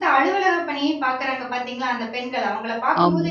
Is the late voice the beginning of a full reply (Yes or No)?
No